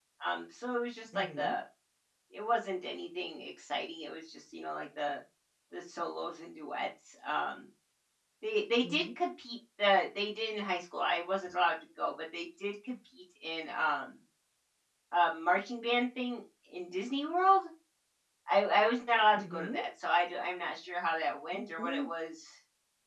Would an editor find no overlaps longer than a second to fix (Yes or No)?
Yes